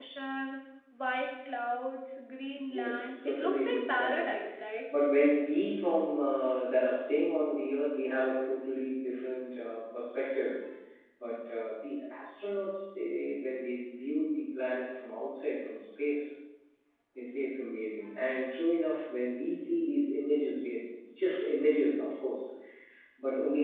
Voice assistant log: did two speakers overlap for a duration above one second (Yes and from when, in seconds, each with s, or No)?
Yes, from 2.7 s